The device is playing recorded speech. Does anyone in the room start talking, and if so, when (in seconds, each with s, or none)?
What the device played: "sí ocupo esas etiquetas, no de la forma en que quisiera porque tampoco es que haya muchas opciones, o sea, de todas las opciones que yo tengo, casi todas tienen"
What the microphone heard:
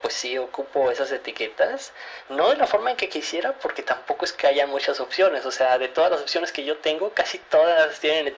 none